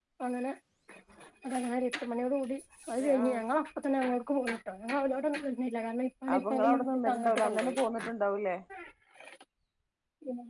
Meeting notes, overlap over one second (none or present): present